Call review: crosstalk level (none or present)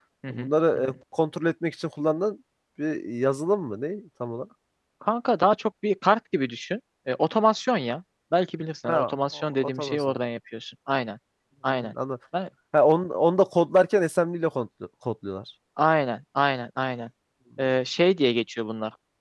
present